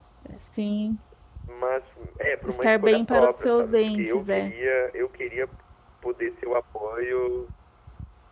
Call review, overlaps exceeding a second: present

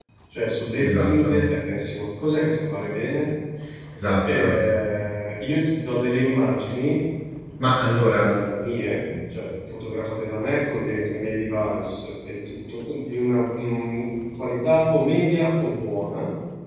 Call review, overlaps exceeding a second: none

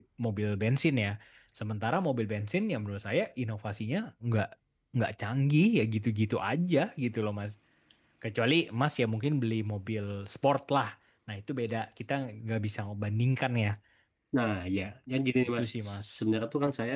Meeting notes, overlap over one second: none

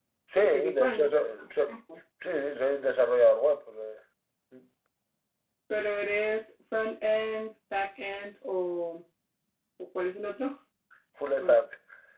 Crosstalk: present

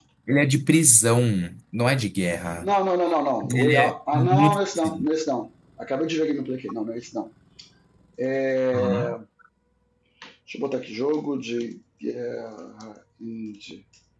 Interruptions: present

